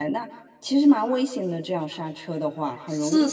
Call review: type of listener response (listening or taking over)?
taking over